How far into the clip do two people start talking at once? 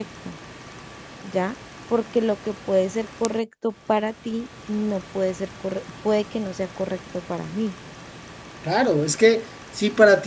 none

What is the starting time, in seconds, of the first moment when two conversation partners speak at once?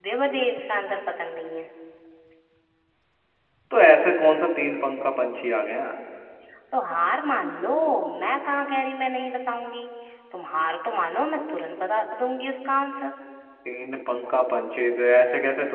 none

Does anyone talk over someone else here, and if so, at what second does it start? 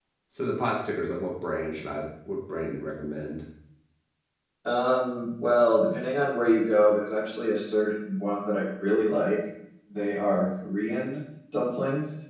none

